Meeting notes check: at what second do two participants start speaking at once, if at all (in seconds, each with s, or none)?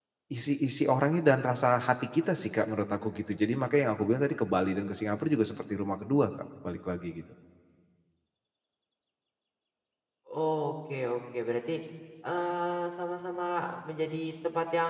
none